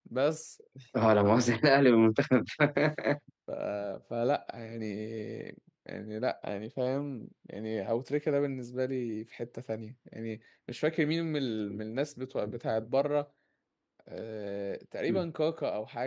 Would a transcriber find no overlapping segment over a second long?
Yes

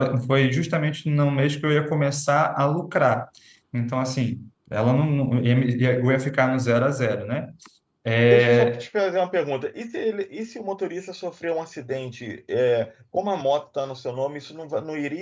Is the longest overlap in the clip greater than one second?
No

